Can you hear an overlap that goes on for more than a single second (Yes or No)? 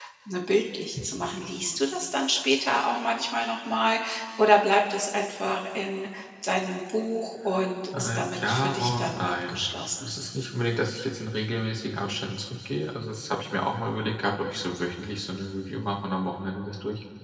Yes